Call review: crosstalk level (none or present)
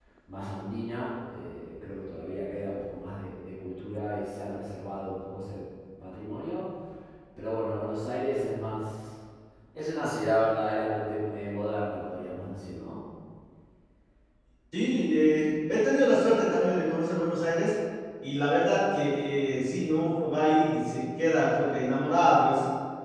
none